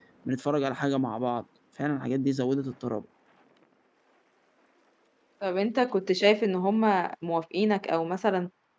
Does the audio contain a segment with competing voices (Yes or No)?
No